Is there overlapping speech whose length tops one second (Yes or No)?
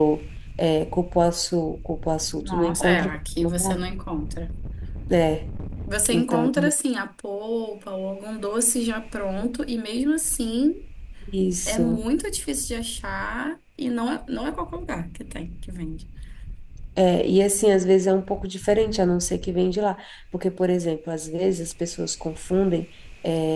Yes